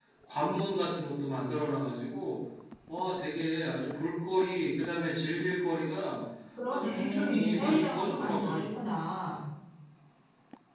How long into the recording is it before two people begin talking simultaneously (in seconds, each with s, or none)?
6.7 s